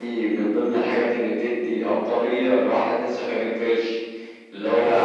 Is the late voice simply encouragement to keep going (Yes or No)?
Yes